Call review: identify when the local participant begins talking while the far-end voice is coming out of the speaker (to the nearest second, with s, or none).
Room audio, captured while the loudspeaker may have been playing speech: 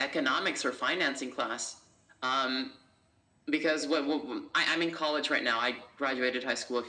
none